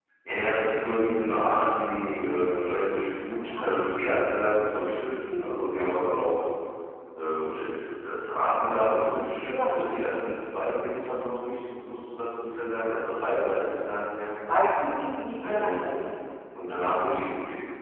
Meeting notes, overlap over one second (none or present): none